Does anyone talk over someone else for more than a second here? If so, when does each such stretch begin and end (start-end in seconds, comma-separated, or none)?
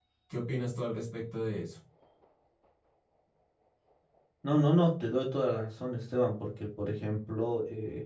none